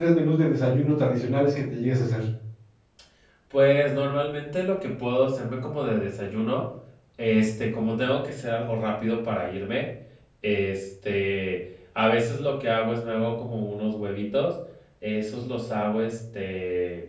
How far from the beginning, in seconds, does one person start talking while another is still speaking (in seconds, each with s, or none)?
none